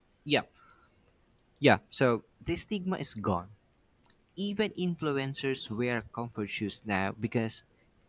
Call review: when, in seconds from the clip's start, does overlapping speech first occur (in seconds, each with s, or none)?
none